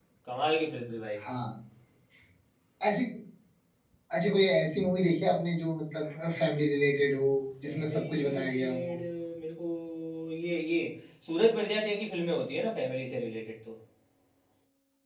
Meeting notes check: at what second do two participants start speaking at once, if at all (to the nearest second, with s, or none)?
8 s